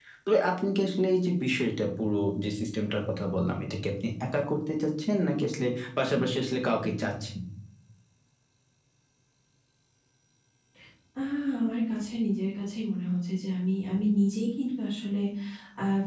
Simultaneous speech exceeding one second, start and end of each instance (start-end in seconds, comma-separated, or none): none